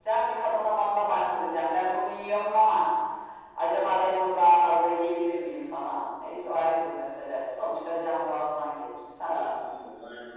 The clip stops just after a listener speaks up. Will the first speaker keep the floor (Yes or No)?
No